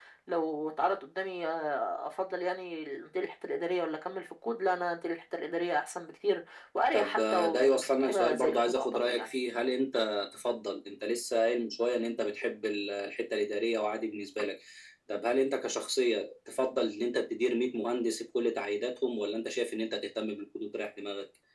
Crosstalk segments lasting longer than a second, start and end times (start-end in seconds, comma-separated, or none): 6.9-9.3